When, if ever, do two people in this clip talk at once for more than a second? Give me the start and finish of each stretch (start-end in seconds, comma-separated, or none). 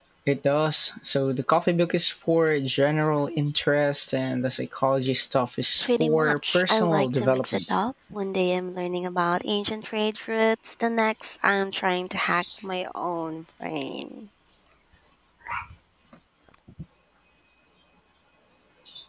5.8-7.8